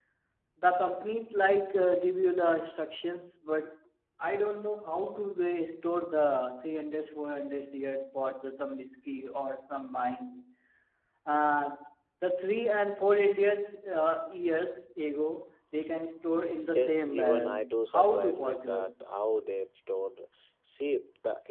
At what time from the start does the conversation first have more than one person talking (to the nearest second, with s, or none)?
17 s